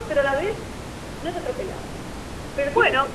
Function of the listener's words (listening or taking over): listening